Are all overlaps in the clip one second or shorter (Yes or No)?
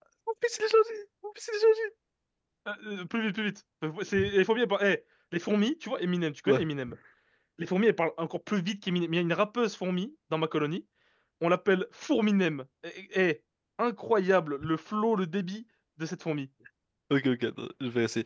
Yes